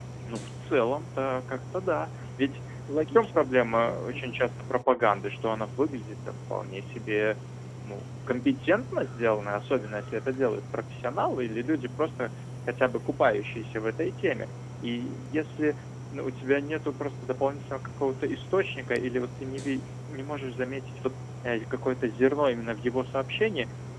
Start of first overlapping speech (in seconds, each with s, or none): 3.2 s